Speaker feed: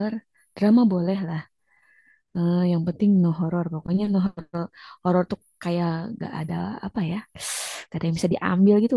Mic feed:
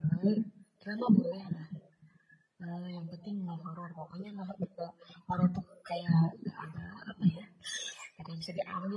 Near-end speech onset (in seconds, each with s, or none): none